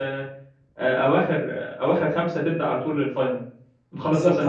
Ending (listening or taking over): taking over